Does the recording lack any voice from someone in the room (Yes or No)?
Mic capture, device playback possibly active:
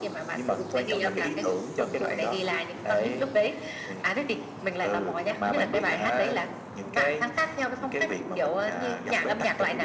Yes